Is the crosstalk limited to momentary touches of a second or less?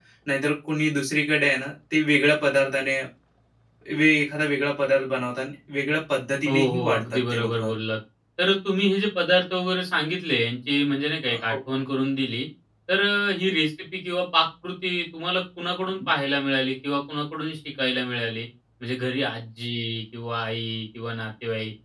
No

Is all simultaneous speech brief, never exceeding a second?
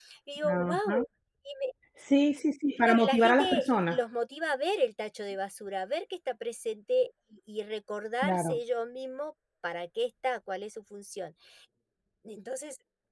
No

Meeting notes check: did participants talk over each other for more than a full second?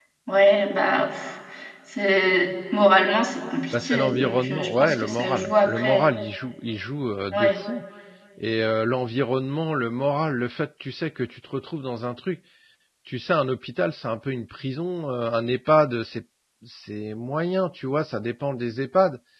Yes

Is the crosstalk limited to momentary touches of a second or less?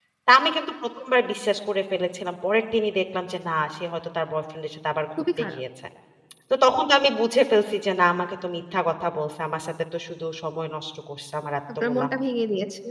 Yes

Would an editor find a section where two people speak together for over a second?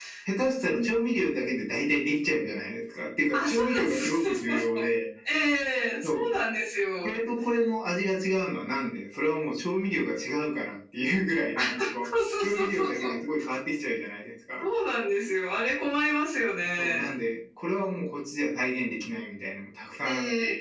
Yes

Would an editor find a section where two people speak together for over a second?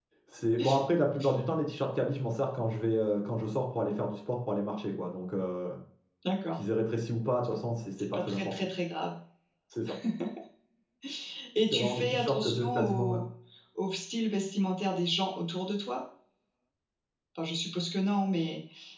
Yes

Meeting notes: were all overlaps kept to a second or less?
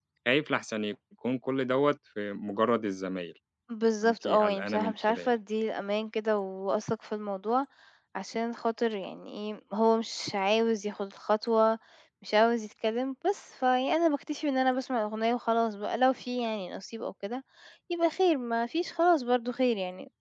No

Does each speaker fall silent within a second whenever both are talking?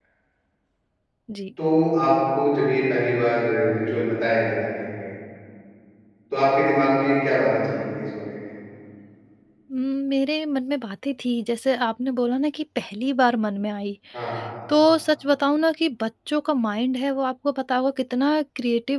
Yes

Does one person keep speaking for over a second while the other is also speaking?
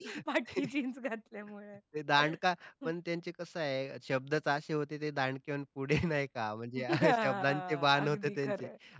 Yes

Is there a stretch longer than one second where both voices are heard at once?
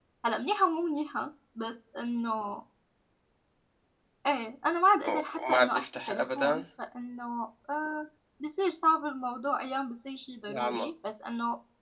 Yes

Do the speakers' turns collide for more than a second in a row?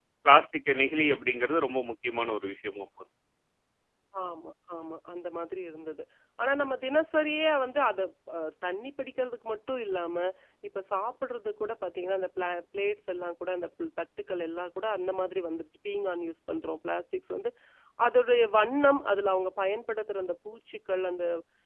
No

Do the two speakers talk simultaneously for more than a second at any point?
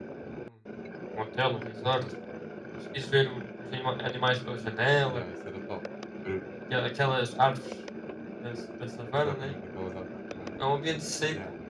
No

